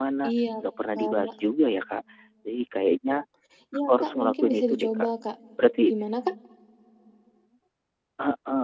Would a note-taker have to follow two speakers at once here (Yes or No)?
Yes